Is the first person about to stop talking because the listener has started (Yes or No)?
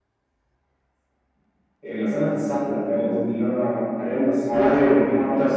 Yes